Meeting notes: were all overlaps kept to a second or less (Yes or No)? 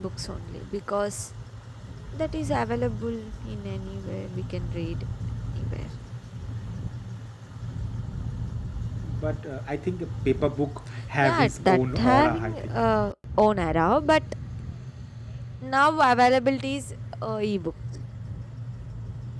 No